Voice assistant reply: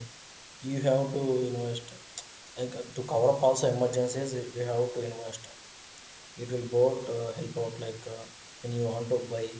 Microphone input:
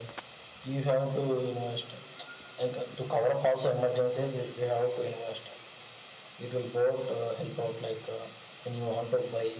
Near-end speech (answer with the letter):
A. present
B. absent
B